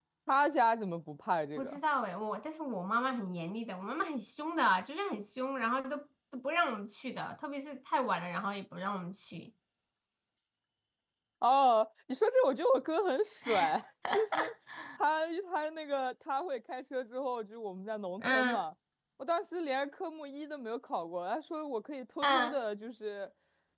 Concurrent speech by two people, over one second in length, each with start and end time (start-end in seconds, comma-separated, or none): none